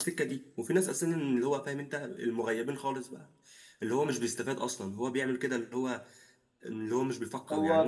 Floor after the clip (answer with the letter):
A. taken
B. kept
A